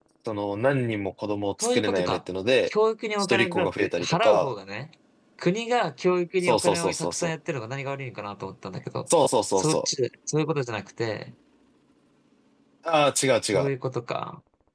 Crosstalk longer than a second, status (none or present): present